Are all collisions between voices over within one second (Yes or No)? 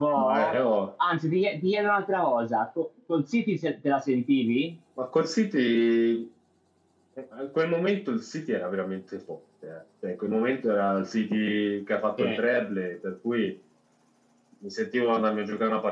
Yes